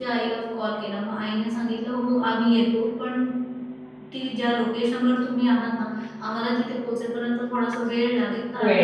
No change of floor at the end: Yes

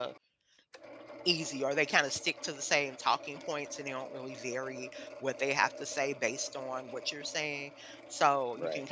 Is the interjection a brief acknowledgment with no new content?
Yes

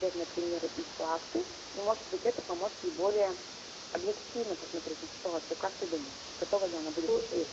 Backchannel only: No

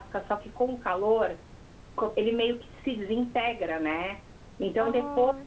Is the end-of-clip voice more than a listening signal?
No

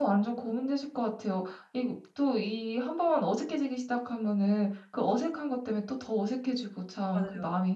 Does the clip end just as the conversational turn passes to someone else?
No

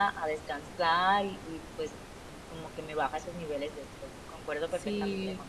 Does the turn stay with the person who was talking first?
No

